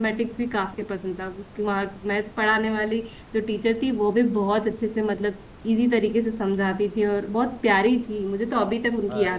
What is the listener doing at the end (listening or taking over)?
taking over